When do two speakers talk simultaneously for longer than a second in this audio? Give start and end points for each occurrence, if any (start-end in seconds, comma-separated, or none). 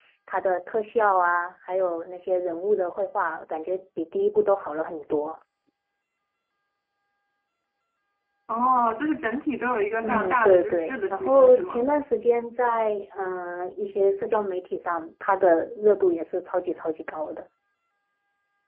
10.0-11.8